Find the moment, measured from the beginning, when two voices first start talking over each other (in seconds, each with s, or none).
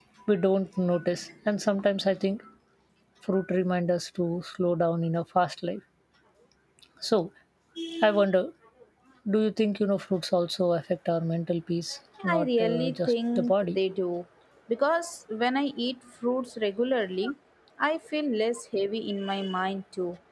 12.2 s